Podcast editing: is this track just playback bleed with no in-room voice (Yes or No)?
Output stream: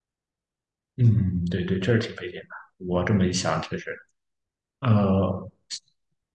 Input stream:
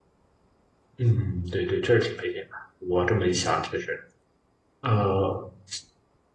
Yes